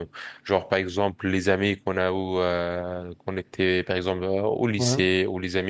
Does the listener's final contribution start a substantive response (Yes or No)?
No